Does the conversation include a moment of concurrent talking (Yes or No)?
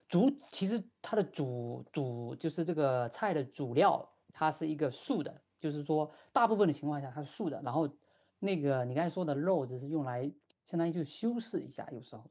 No